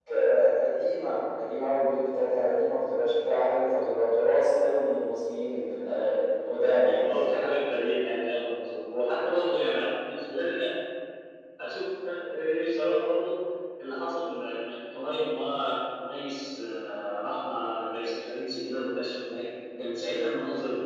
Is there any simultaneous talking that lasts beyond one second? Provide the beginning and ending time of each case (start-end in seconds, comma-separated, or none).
none